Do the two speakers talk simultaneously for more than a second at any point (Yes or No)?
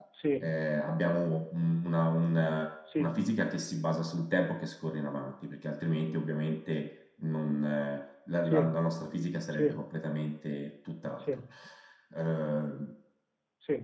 No